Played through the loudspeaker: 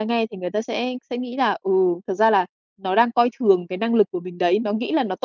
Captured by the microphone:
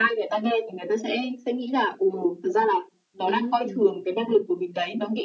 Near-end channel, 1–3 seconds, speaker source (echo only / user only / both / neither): echo only